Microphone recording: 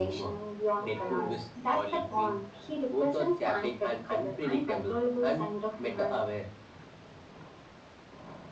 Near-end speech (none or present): none